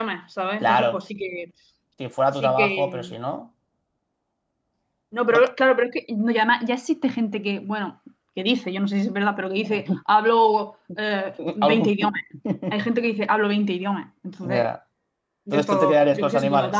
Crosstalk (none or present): present